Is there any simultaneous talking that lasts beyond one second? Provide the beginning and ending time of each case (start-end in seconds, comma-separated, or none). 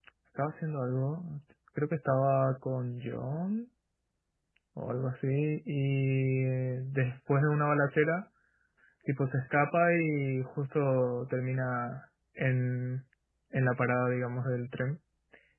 none